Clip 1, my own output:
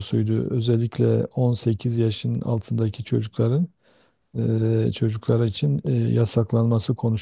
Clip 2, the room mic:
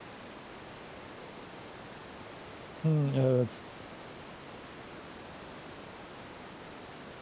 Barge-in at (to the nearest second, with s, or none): 3 s